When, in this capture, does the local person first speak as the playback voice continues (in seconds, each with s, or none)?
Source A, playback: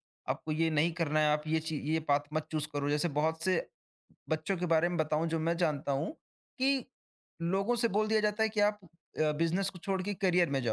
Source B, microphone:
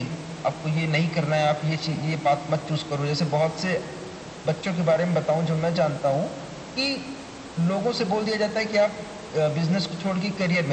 none